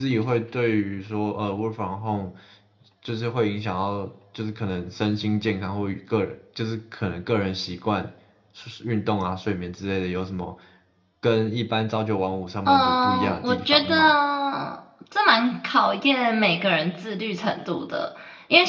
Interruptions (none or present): present